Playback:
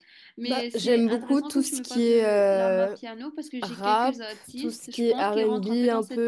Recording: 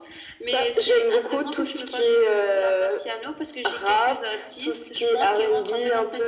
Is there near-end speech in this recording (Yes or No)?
No